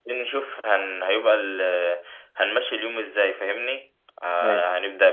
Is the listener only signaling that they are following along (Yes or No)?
Yes